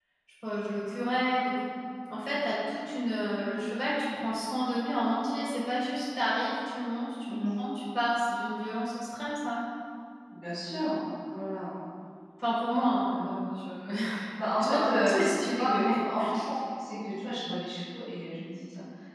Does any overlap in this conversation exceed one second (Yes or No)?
Yes